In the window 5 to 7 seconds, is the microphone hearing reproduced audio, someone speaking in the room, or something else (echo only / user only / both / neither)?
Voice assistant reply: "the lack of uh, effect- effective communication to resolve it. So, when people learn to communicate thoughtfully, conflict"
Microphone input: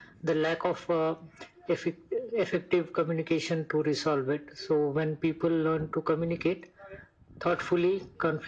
echo only